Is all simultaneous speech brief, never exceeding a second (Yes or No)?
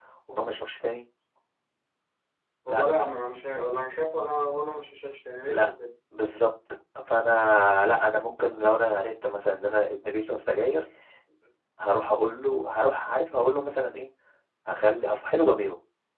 Yes